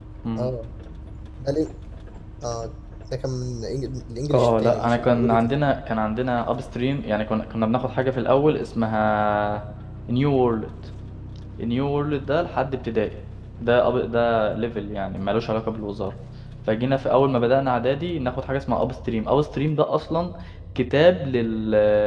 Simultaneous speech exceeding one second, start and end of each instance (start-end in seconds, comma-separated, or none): 4.3-5.6